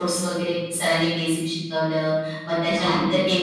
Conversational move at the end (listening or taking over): listening